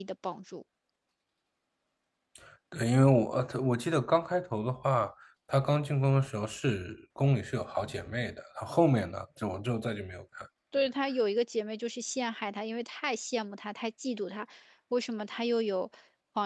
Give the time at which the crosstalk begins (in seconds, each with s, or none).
none